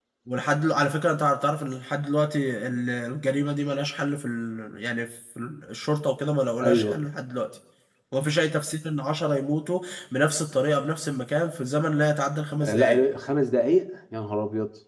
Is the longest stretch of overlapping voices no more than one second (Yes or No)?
Yes